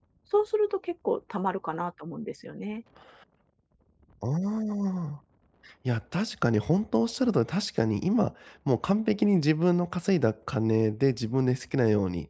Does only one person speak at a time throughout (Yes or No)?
Yes